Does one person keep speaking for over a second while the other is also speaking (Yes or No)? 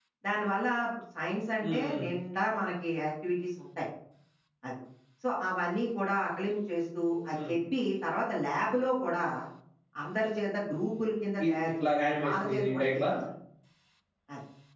Yes